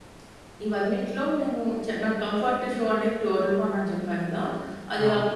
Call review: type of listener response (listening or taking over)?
listening